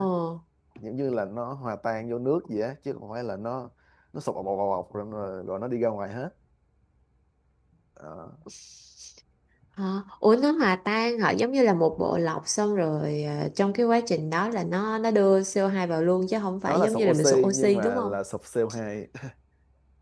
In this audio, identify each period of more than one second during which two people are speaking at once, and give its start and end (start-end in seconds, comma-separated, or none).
16.7-18.1